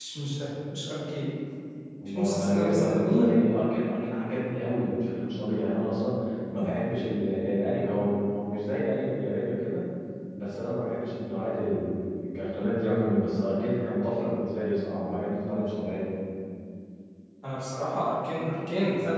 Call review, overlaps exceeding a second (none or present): present